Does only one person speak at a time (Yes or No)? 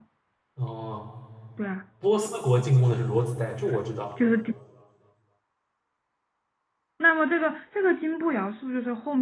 Yes